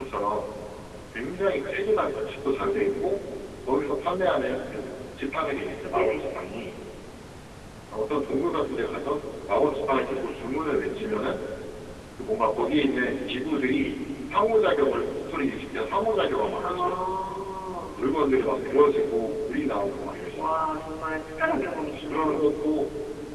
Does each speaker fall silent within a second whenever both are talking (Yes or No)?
Yes